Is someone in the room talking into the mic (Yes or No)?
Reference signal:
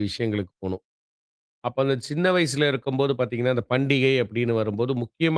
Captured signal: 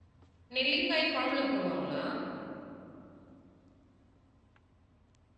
Yes